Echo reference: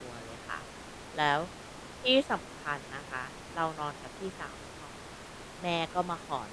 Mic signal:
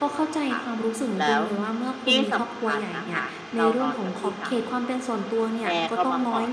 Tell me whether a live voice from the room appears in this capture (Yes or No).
Yes